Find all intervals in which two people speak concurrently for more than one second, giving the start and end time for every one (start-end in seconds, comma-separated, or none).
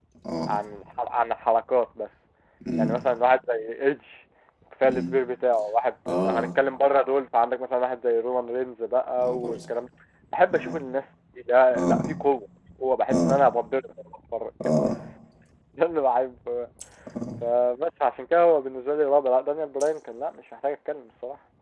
none